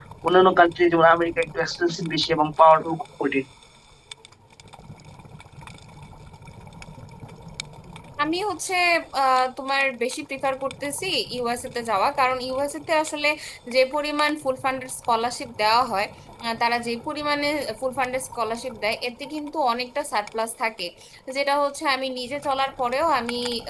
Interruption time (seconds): none

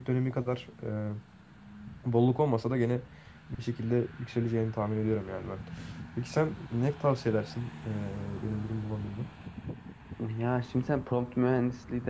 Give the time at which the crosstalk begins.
none

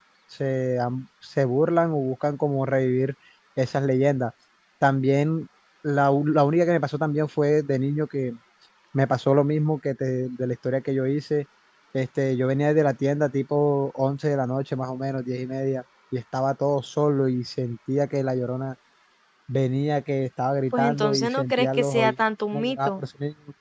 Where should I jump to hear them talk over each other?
20.7 s

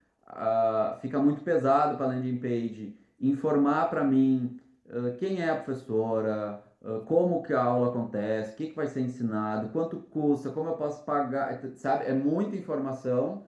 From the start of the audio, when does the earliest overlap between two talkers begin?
none

